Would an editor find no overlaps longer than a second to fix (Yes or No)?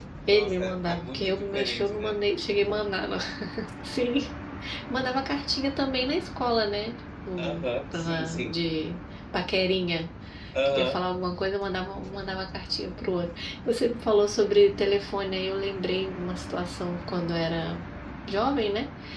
No